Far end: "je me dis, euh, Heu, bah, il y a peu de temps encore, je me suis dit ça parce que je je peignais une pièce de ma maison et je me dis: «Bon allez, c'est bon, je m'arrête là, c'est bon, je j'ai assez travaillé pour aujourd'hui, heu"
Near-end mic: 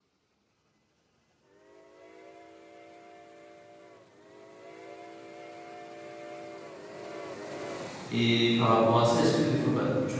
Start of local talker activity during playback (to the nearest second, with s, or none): 8 s